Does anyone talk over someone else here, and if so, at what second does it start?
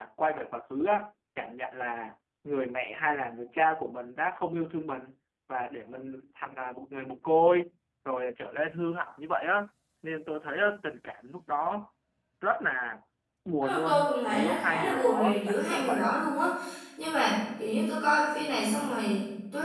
13.6 s

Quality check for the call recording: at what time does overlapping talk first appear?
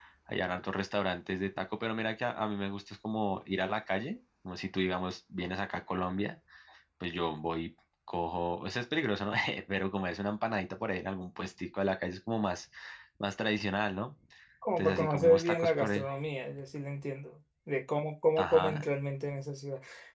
14.7 s

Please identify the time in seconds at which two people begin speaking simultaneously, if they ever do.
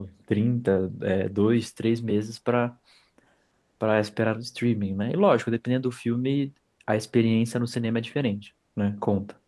none

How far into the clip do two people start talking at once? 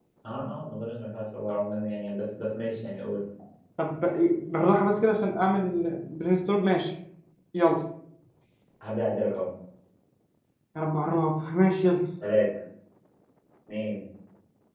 none

